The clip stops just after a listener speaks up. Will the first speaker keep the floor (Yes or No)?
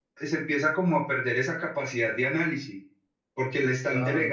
Yes